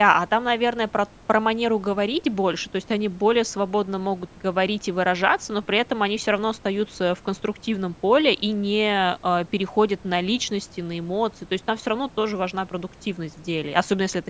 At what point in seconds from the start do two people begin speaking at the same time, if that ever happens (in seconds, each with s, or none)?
none